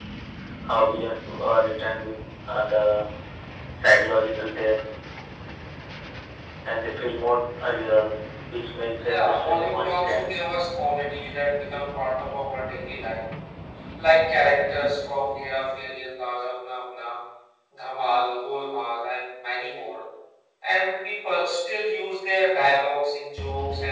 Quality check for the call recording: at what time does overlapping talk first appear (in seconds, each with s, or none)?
9.0 s